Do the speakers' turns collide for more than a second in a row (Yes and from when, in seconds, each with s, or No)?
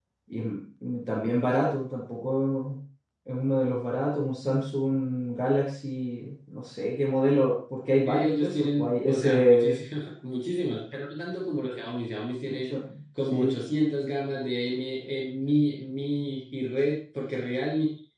Yes, from 8.1 s